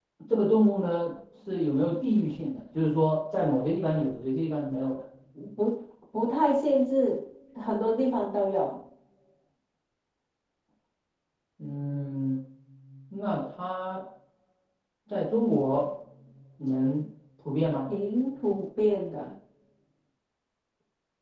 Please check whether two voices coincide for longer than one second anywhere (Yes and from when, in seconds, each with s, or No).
No